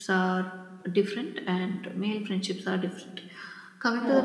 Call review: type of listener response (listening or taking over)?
listening